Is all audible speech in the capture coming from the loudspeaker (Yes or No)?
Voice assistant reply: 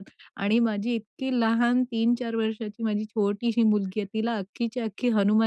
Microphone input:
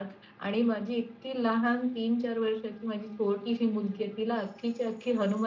Yes